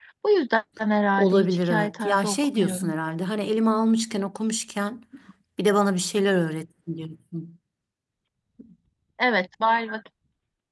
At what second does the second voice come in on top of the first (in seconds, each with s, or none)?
1.1 s